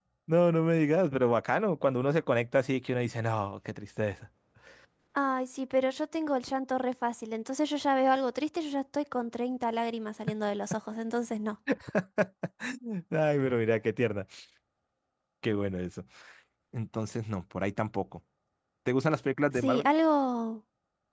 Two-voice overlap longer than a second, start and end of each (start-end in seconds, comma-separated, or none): none